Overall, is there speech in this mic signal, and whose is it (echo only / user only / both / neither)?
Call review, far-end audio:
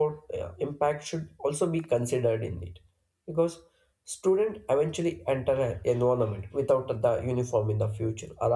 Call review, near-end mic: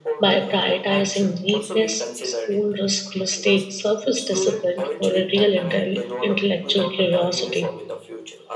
both